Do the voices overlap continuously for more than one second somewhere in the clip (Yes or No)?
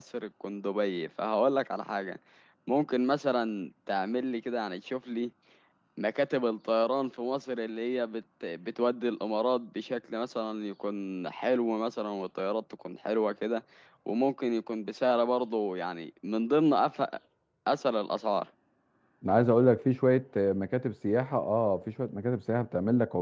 No